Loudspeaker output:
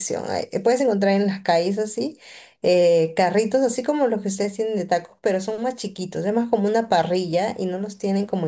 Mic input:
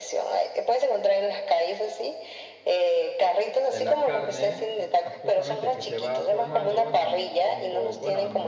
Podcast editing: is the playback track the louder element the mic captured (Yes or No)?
Yes